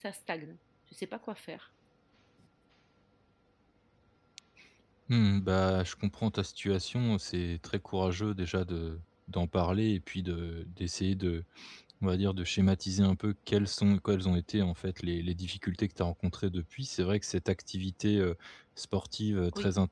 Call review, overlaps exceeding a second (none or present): none